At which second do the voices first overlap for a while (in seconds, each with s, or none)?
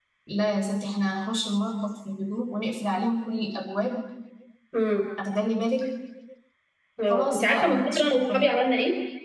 7.1 s